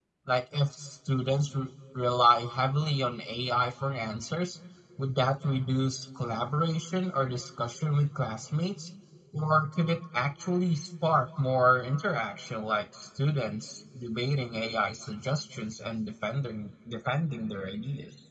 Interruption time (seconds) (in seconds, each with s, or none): none